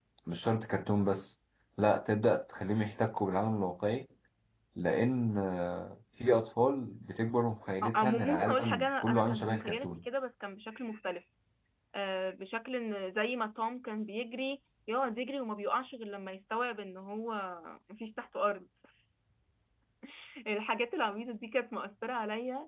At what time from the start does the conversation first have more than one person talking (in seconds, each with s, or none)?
7.8 s